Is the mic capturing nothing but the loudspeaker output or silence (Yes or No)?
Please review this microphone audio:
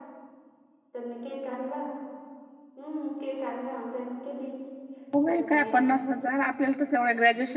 No